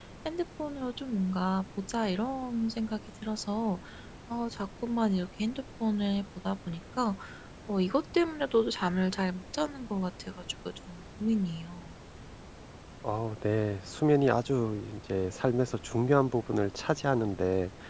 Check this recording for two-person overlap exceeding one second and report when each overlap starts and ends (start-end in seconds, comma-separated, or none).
none